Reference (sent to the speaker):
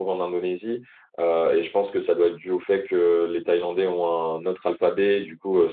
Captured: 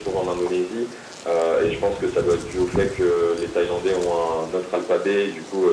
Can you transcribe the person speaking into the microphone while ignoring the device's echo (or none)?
none